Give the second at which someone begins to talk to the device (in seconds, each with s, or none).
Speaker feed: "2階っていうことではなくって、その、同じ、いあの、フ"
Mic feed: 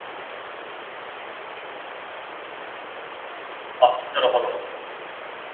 3.8 s